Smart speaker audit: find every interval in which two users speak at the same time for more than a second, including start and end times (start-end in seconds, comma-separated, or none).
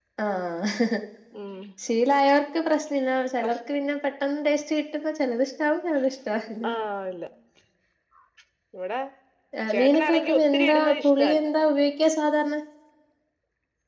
9.7-11.5